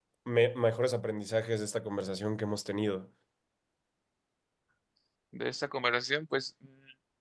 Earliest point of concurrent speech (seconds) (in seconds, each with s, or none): none